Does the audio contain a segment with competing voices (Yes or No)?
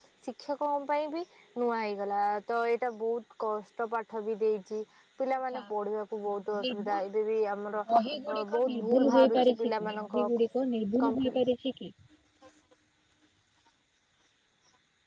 Yes